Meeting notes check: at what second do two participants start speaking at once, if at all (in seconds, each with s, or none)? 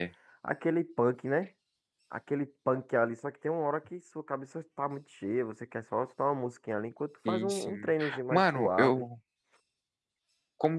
7.2 s